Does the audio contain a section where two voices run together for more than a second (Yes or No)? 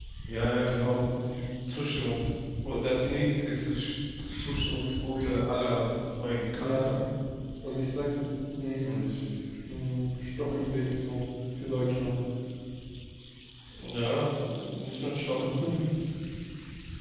No